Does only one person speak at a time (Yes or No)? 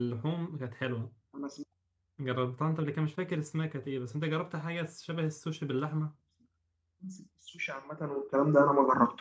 Yes